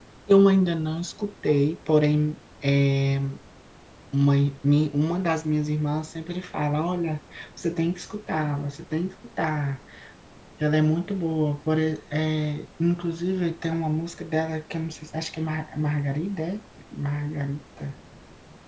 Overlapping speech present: No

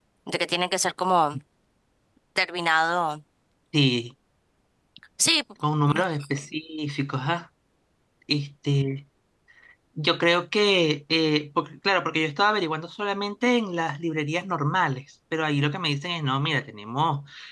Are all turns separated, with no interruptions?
Yes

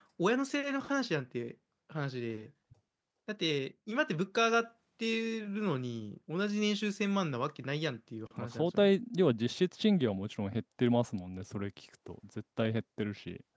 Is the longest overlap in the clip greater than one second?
No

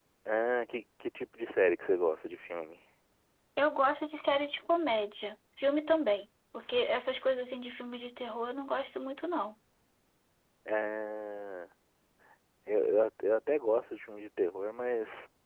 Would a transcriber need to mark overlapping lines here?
No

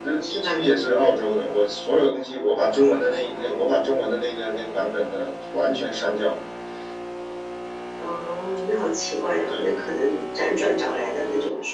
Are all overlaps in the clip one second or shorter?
Yes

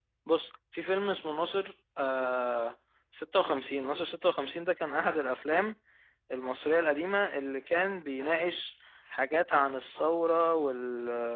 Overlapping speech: No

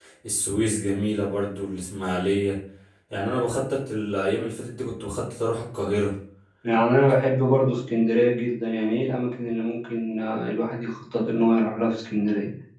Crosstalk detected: No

